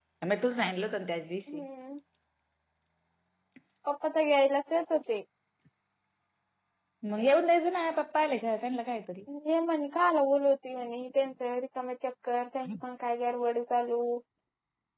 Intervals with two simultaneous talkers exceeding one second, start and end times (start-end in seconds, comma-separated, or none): none